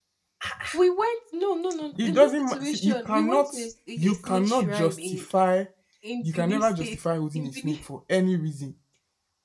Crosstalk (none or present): present